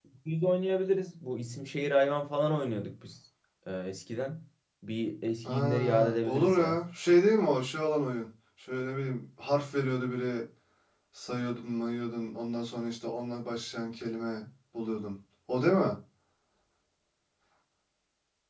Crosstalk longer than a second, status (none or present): present